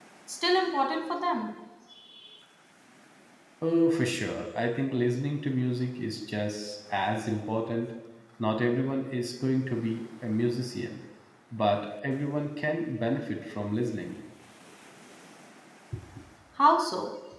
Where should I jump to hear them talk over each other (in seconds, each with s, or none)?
none